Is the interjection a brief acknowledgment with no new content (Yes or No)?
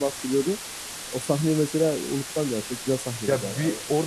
No